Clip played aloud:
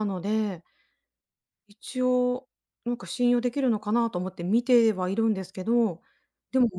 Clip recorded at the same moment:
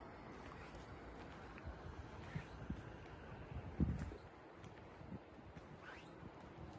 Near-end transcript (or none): none